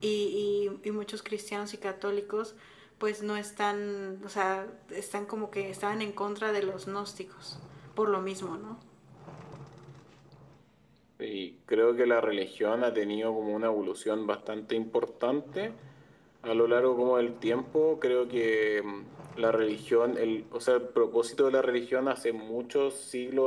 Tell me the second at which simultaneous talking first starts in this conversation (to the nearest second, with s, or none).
none